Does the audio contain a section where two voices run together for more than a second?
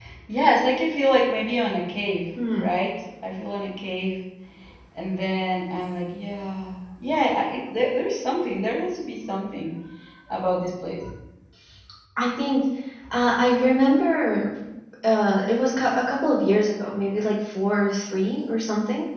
No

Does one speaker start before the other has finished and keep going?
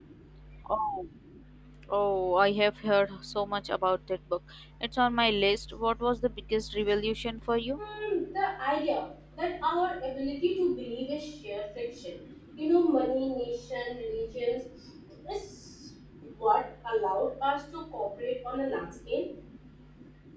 No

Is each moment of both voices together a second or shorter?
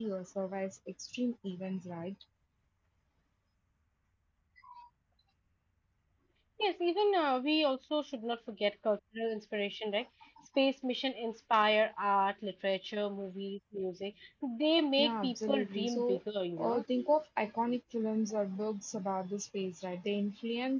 No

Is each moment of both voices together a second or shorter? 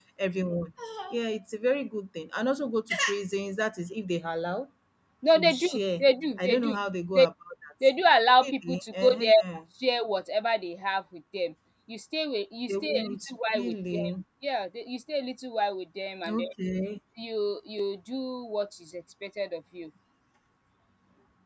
No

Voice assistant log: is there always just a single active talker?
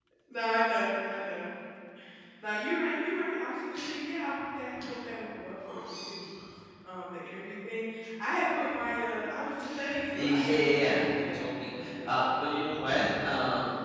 No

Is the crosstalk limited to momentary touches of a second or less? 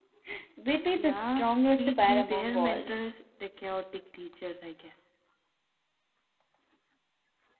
No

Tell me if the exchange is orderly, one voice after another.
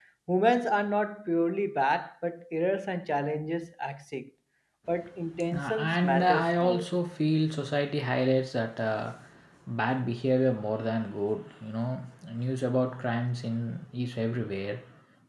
No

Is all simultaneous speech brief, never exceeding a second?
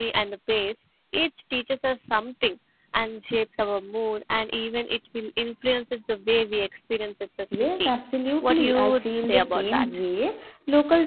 No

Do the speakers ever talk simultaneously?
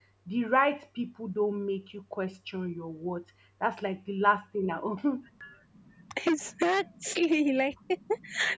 No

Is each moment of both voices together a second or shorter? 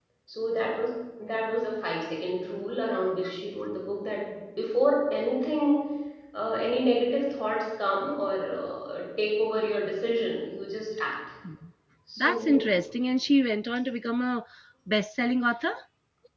Yes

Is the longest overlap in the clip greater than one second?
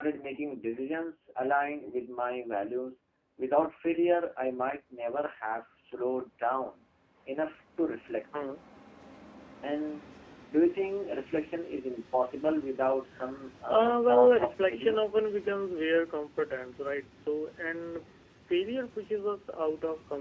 Yes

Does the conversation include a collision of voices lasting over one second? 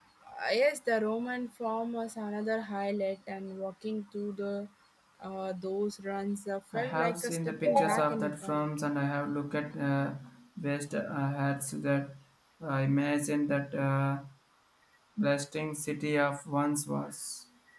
Yes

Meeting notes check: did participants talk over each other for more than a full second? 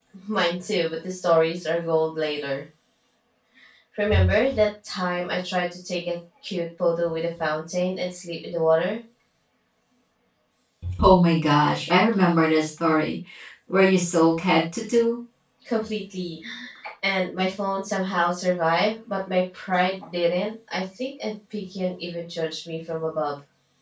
No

